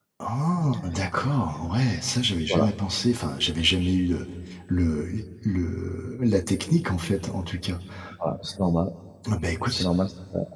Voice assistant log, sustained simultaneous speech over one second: none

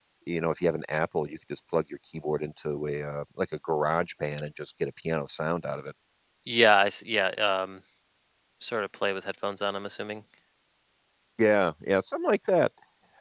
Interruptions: none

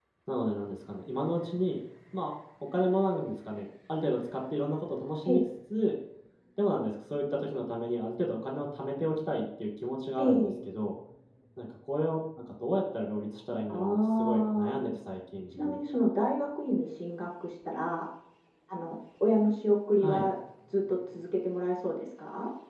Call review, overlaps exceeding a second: present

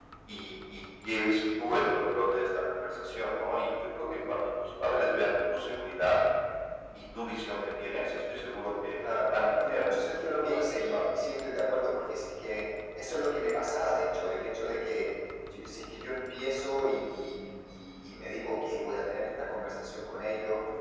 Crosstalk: present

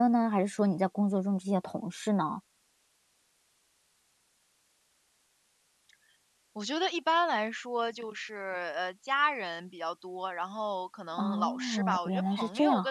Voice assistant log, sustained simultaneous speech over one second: present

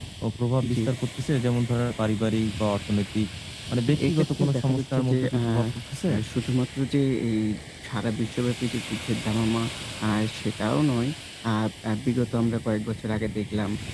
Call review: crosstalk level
present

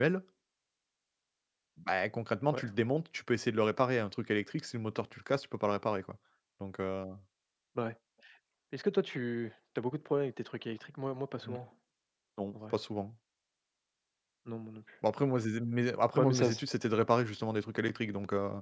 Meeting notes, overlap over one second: none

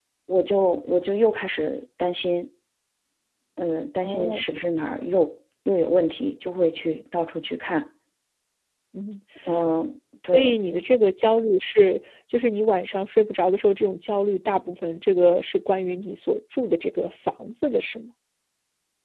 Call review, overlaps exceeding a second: none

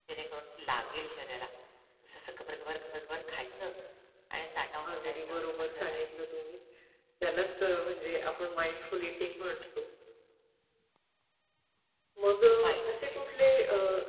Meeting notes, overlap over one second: present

